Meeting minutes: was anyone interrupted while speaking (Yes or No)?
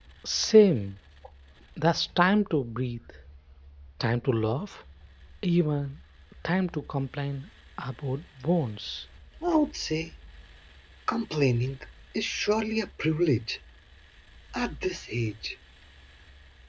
No